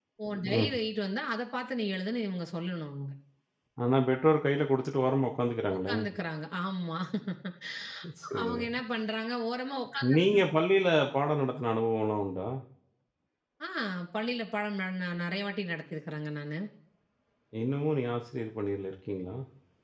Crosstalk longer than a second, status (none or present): none